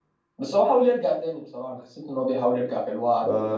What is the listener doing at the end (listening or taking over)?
taking over